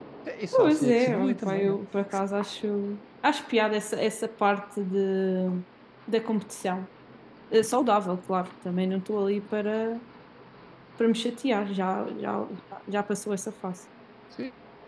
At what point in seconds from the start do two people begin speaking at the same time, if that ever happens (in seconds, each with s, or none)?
0.5 s